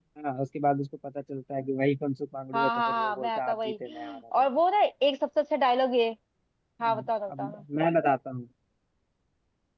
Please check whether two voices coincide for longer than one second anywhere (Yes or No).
Yes